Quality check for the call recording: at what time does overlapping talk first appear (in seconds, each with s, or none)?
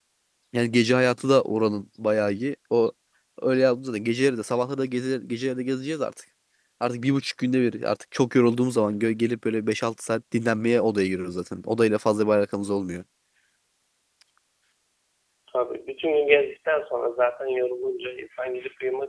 none